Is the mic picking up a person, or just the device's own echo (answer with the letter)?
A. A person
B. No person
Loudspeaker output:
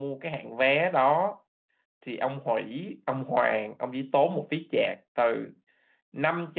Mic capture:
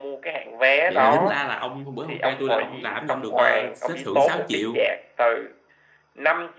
A